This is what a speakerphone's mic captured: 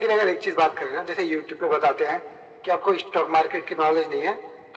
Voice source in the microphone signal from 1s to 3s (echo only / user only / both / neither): echo only